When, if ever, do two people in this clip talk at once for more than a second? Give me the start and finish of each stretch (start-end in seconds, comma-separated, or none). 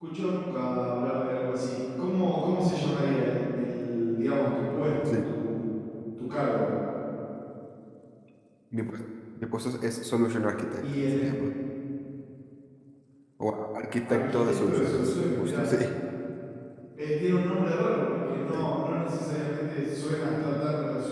14.1-15.7